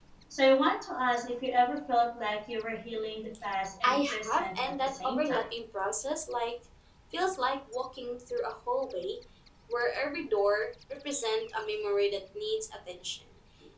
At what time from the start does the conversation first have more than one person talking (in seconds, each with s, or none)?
3.8 s